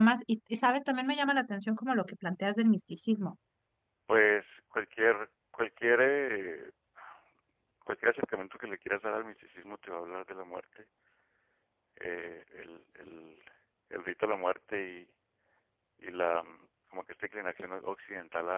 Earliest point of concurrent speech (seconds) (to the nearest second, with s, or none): none